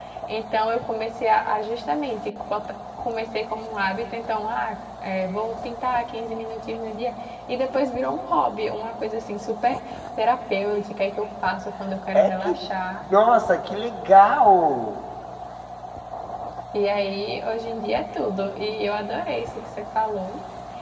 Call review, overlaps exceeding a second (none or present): none